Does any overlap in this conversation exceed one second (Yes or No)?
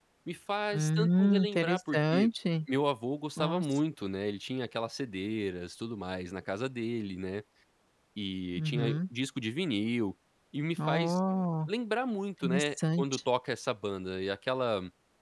Yes